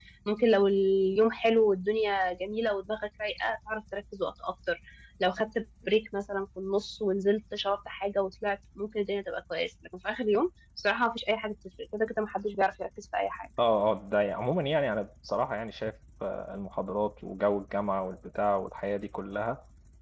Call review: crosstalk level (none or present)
none